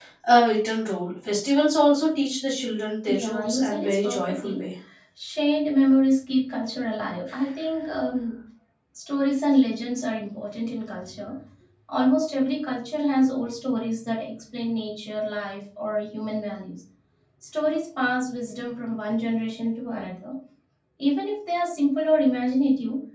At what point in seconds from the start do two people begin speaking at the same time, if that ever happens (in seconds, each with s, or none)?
3.1 s